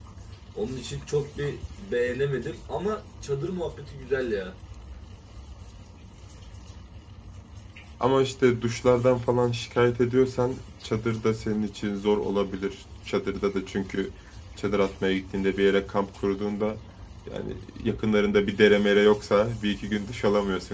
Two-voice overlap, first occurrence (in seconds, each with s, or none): none